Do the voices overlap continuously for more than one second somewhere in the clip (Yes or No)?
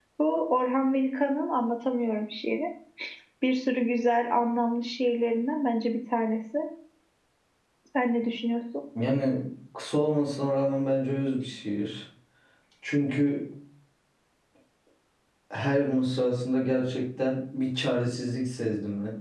No